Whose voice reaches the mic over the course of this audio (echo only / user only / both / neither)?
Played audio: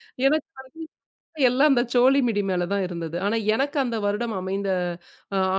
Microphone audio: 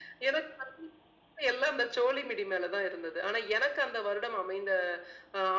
echo only